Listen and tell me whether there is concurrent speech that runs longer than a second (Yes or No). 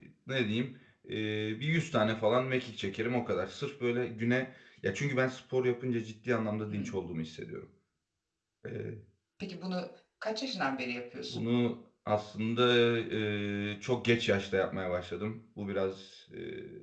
No